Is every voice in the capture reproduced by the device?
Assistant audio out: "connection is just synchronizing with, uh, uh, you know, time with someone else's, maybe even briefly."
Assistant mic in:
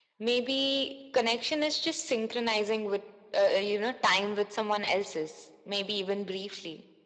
Yes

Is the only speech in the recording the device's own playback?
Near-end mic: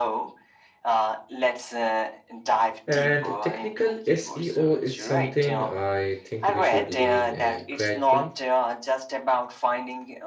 No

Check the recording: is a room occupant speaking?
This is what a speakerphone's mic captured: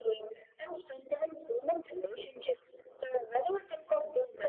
No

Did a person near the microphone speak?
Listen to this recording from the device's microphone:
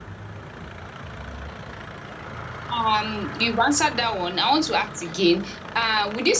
Yes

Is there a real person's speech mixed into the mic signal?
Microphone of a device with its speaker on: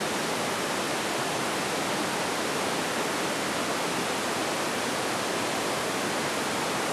No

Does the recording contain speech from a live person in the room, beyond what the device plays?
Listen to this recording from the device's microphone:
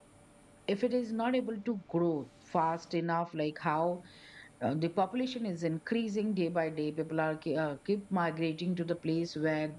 Yes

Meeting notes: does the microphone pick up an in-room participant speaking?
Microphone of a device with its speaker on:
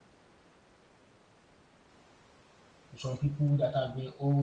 Yes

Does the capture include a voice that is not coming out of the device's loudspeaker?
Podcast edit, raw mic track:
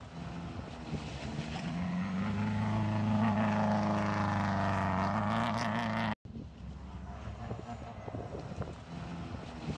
No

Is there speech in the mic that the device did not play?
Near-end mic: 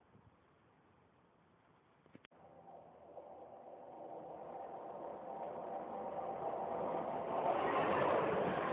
No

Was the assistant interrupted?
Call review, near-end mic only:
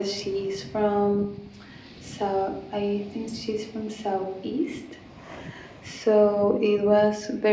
No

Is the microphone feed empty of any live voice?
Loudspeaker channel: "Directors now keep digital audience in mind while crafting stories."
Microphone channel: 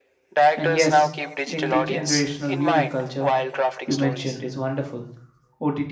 No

